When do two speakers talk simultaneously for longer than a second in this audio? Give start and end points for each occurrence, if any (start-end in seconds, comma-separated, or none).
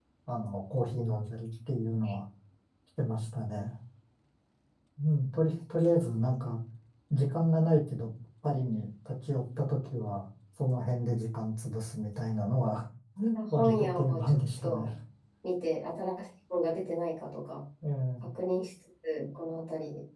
13.6-14.9